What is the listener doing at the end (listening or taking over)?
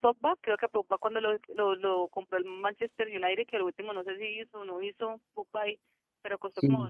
listening